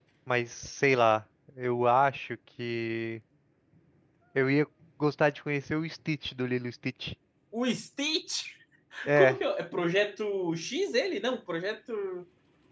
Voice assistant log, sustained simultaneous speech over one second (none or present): none